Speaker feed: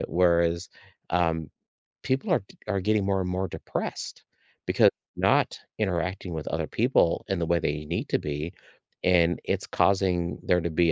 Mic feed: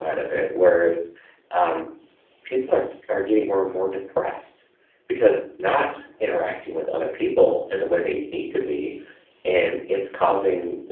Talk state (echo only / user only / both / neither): echo only